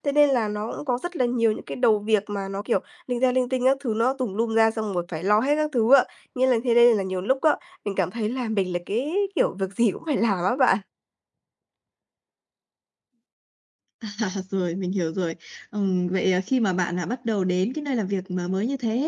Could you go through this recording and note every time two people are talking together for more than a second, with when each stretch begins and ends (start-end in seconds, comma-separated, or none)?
none